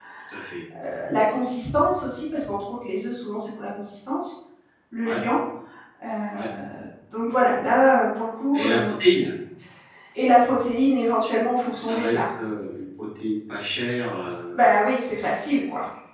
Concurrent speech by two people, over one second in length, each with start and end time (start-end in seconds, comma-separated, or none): none